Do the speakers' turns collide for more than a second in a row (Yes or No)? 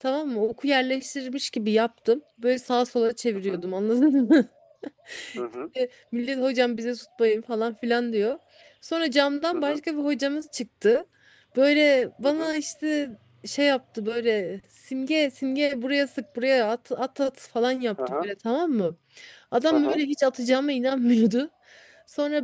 No